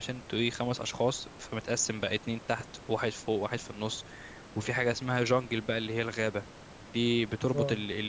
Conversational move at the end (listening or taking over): listening